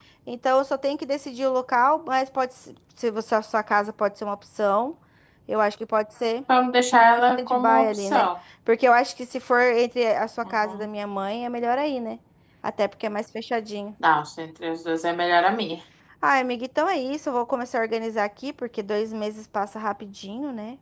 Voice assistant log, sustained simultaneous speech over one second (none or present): present